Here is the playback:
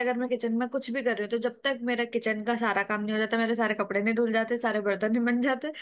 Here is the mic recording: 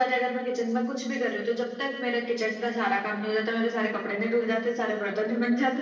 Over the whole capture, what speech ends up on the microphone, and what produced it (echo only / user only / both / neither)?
echo only